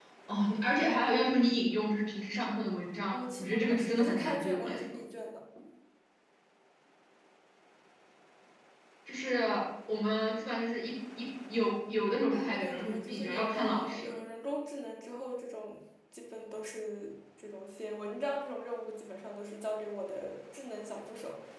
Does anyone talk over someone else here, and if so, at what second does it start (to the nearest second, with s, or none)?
3 s